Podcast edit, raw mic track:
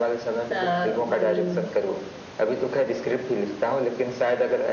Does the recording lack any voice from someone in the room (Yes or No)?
No